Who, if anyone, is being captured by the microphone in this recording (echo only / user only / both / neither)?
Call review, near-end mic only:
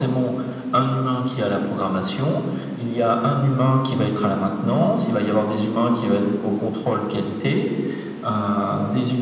echo only